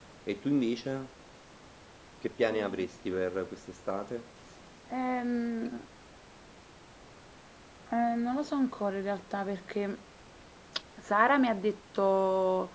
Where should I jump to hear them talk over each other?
none

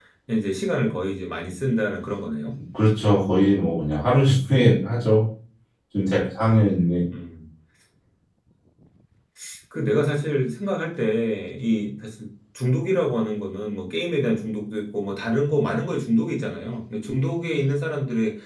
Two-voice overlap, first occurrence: none

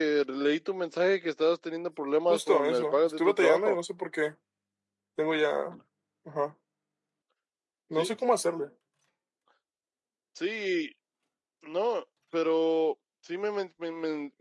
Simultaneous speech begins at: 2.3 s

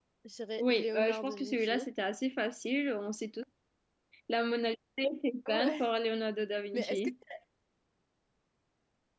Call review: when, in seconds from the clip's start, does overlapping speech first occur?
0.6 s

